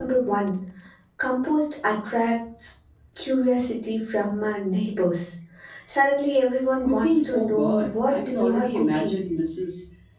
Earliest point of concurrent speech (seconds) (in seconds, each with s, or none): 6.8 s